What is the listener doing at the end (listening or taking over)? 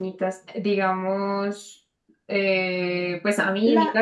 listening